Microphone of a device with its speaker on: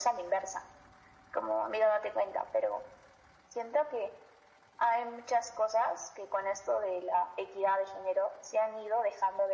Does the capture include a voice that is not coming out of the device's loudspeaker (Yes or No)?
No